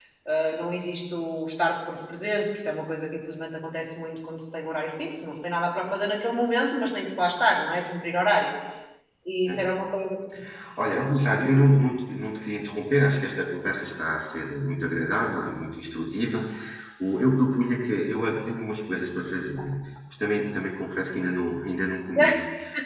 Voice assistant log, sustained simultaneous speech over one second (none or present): none